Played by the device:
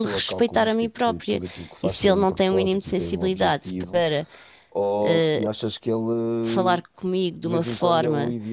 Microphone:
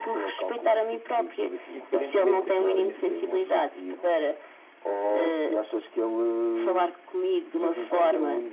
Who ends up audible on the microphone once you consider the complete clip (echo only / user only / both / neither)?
both